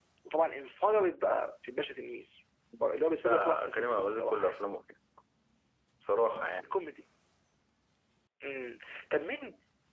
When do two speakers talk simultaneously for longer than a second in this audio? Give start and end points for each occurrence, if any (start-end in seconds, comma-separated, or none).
3.2-4.7